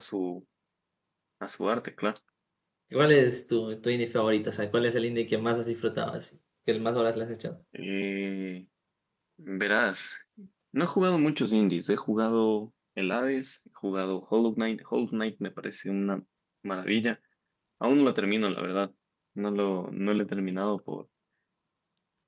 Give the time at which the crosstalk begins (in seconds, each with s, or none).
none